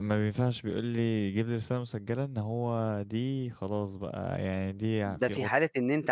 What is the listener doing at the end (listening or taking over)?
taking over